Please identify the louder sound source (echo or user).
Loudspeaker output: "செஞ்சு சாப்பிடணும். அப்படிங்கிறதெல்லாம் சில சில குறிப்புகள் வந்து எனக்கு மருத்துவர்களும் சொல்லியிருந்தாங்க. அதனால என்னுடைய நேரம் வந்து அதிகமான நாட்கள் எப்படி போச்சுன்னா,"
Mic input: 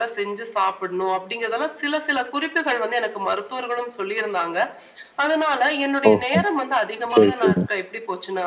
user